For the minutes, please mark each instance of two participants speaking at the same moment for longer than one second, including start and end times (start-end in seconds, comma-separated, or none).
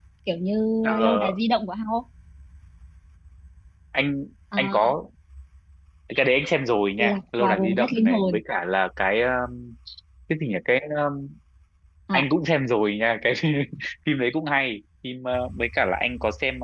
7.0-8.4